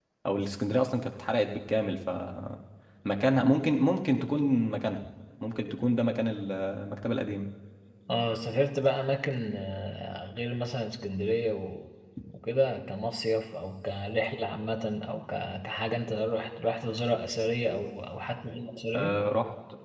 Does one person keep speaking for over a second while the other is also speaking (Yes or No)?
No